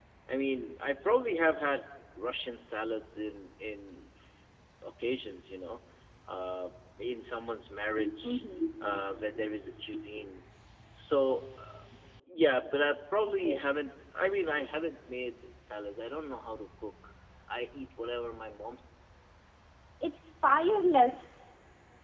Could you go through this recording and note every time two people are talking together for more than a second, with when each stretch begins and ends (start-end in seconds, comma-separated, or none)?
none